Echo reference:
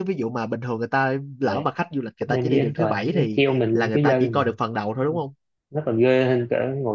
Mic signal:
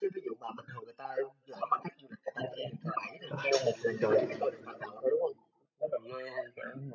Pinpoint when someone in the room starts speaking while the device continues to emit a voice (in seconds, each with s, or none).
3.3 s